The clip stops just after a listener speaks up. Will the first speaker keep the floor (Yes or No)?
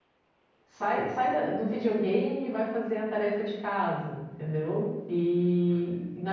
Yes